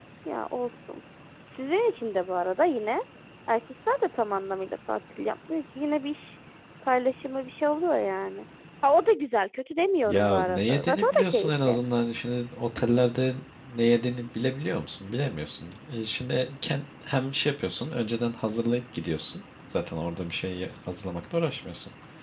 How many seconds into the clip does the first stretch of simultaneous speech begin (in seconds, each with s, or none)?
10.0 s